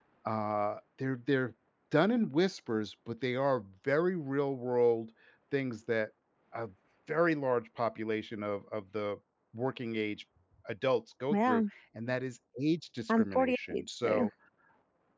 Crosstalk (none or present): present